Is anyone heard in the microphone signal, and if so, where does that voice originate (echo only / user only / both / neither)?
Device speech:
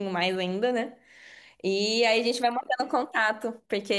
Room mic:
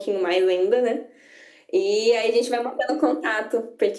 echo only